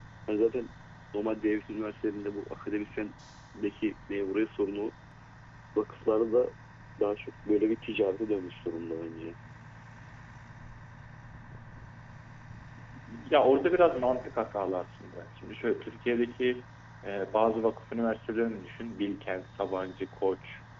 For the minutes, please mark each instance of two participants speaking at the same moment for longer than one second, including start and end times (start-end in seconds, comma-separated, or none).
none